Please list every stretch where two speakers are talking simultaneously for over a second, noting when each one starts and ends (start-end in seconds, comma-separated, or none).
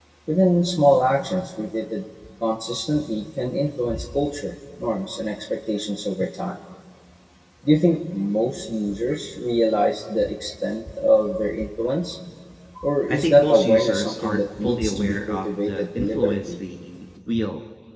13.1-16.5